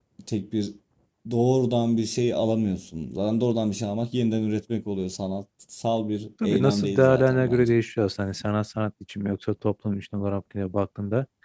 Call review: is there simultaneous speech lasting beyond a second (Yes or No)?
Yes